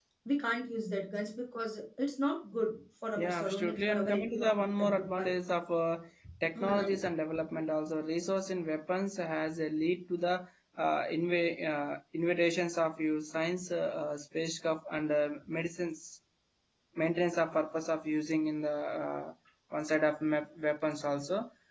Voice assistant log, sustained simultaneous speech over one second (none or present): present